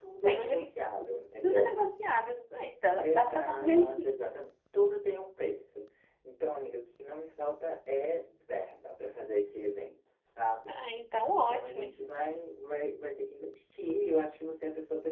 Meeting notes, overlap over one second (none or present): present